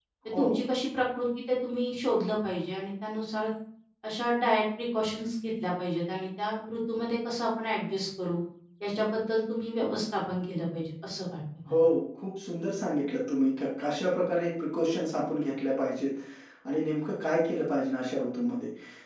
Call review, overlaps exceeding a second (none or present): none